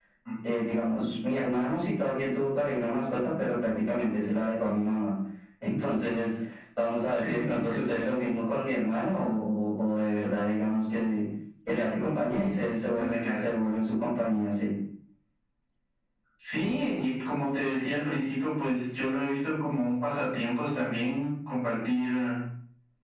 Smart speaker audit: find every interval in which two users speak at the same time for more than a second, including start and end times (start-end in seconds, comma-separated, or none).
none